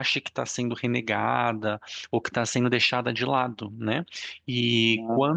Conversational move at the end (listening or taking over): listening